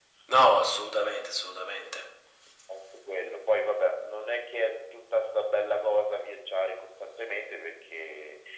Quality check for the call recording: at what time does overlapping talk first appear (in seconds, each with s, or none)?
none